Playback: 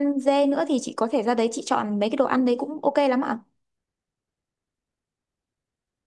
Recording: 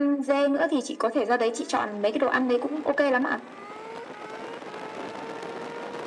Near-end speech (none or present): none